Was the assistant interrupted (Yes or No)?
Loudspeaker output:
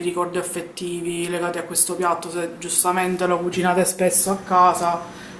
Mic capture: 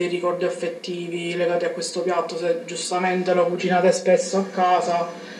No